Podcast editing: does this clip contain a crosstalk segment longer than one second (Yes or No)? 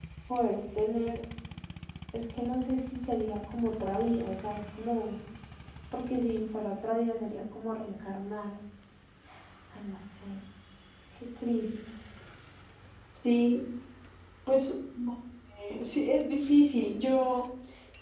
No